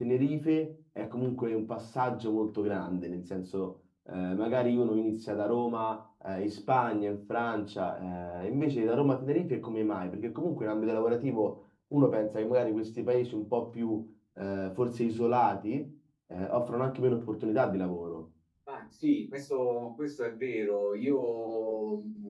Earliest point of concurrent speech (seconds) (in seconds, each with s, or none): none